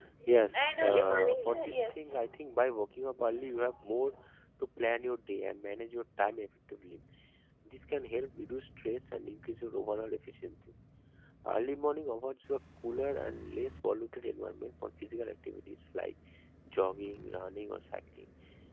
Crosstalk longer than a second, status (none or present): present